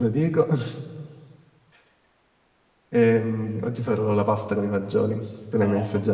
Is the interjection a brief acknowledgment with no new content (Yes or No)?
No